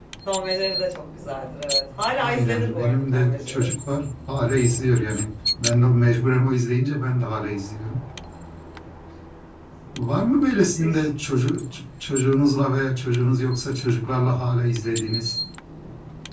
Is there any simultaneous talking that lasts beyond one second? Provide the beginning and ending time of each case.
2.2-3.7

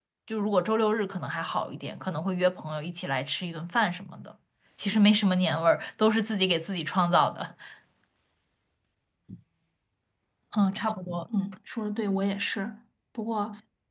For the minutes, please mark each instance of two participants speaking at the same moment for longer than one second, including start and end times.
none

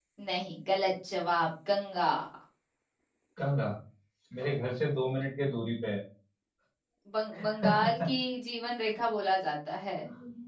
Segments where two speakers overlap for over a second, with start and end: none

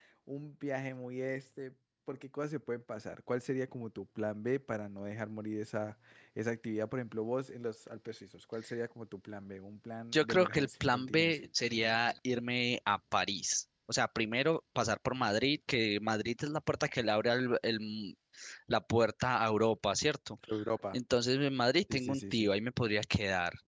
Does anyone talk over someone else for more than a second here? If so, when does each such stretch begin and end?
10.1-11.4

